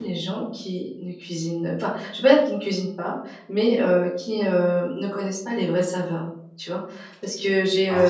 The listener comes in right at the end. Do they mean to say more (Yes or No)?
No